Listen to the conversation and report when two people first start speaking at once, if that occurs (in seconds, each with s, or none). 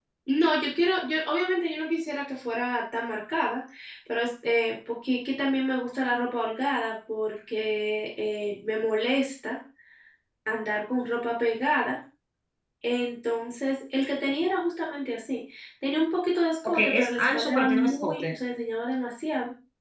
16.6 s